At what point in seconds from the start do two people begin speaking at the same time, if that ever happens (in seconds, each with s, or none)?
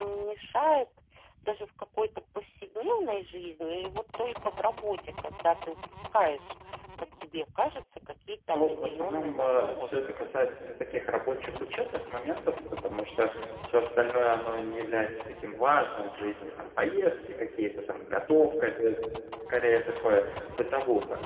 8.5 s